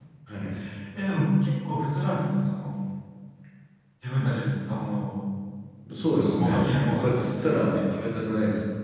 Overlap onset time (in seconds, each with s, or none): 6.1 s